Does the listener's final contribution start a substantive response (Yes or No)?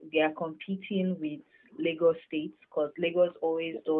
No